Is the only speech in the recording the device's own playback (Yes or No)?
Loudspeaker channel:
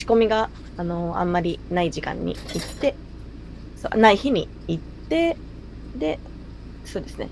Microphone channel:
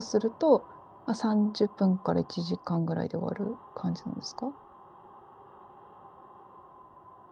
No